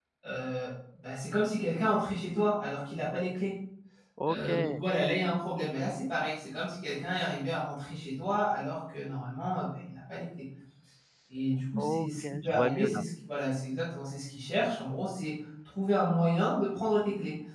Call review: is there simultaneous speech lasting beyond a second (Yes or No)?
Yes